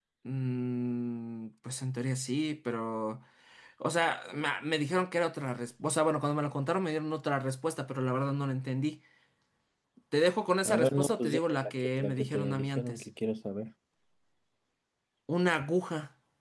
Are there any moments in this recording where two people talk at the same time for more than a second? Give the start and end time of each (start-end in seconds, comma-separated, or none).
10.7-13.1